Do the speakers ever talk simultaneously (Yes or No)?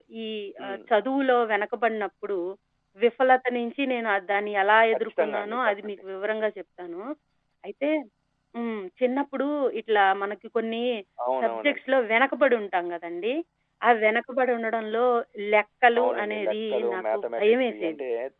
Yes